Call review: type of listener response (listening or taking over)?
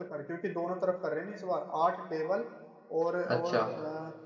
listening